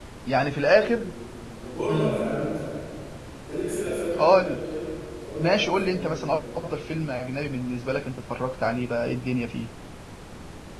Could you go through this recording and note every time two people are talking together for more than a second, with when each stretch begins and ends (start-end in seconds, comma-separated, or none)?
5.4-6.7